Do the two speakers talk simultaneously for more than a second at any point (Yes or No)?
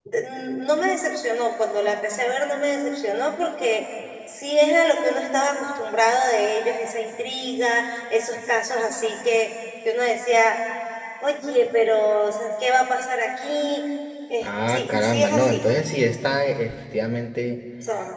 Yes